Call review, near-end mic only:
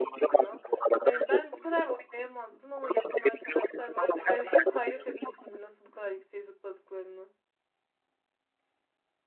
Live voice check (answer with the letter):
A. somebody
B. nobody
A